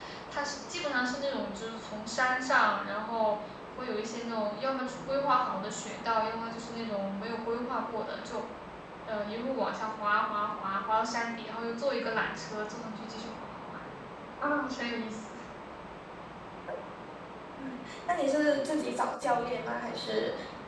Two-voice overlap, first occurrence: none

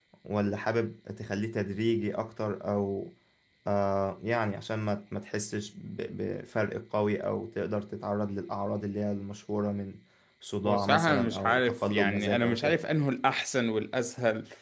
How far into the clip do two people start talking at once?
10.6 s

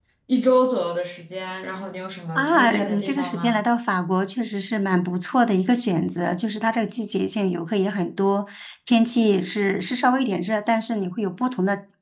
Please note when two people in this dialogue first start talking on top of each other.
2.4 s

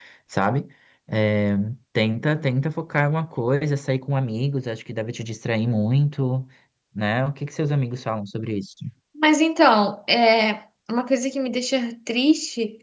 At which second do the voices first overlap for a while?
none

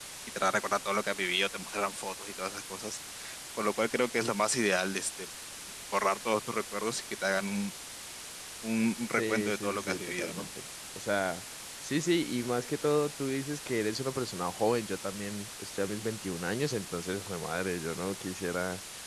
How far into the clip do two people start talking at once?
9.2 s

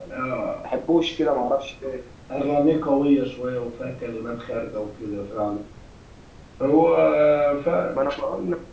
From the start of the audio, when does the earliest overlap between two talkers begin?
none

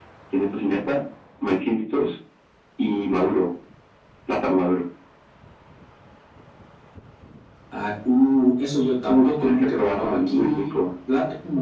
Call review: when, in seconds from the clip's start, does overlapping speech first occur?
9.1 s

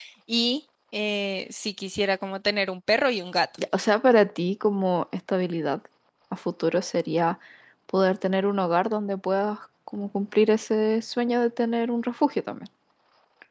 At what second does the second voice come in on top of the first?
none

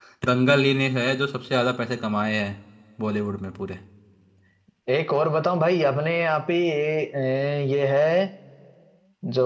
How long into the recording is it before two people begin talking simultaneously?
none

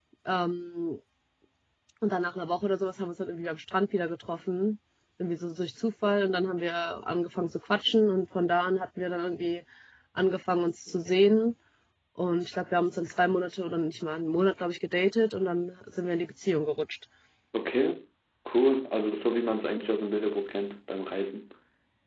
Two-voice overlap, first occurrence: none

